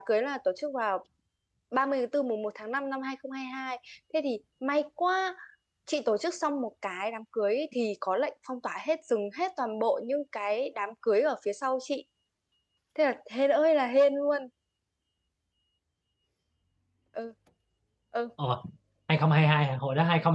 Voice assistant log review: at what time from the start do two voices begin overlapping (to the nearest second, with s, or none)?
none